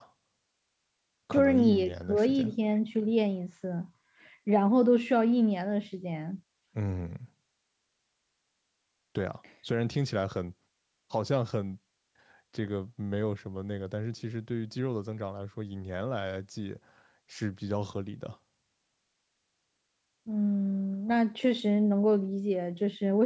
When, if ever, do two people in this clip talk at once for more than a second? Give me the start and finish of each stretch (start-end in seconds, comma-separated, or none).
1.3-2.5